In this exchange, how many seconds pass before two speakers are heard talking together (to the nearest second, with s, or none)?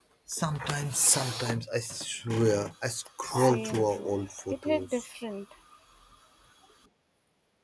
3 s